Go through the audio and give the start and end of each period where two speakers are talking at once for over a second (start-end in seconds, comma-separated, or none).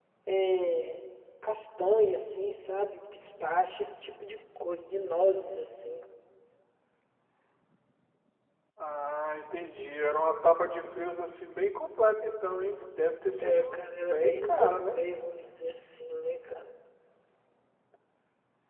13.4-15.0